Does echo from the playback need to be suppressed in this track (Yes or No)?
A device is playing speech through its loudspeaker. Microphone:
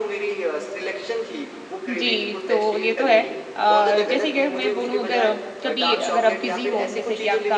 Yes